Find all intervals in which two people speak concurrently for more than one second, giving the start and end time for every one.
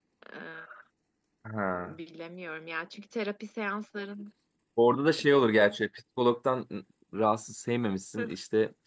none

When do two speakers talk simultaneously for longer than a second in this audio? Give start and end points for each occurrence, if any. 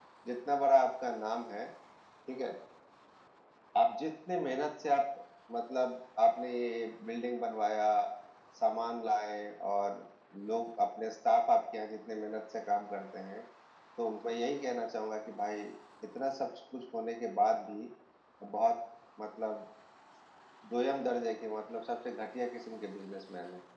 none

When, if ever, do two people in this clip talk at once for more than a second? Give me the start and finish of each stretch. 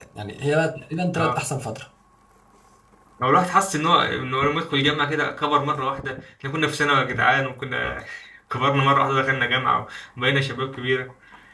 none

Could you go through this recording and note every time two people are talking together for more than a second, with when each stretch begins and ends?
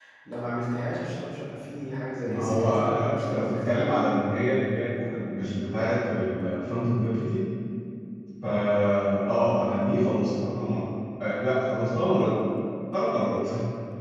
2.2-3.9

